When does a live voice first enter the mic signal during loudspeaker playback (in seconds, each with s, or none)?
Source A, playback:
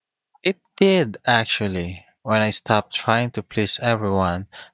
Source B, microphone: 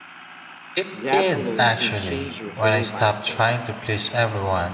0.9 s